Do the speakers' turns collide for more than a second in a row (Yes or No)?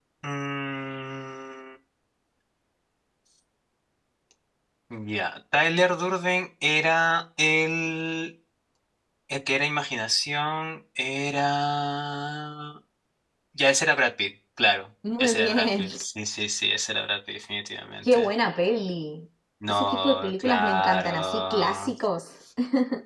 Yes